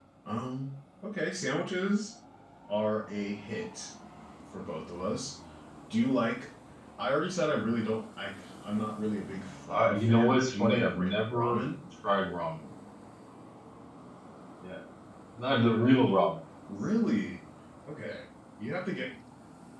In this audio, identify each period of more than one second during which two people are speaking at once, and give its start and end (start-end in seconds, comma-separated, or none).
9.7-11.6